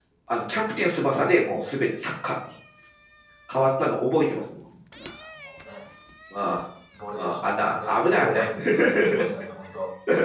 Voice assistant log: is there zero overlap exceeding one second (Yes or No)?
No